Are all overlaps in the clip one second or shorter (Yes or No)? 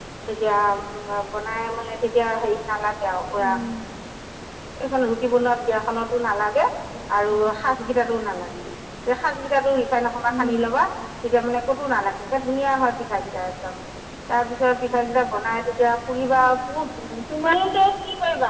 Yes